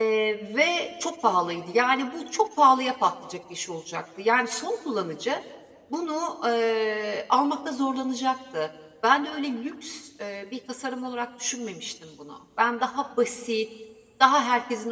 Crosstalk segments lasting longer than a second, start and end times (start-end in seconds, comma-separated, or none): none